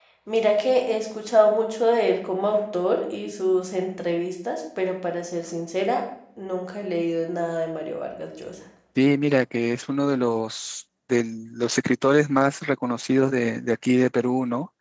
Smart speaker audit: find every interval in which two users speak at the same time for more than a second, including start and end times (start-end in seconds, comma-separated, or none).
none